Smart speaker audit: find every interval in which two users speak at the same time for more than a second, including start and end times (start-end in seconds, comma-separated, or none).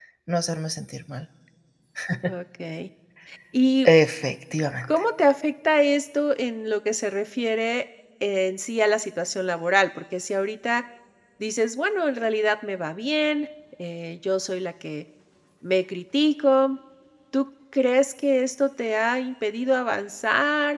none